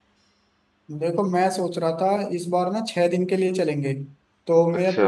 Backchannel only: Yes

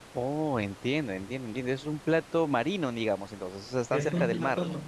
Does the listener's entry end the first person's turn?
Yes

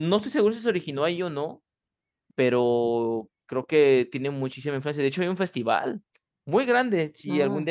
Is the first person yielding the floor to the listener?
No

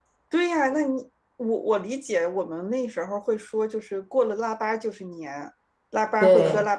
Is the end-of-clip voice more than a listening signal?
No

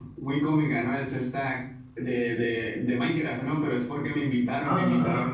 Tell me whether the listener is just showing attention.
Yes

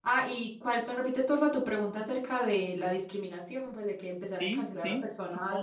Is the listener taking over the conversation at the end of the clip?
Yes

